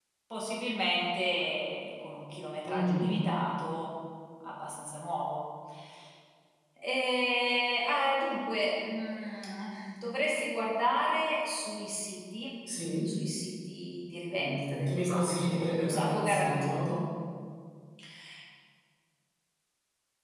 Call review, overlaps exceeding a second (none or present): present